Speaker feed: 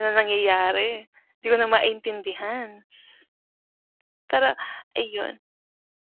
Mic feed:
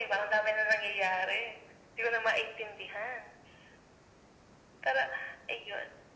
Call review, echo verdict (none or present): present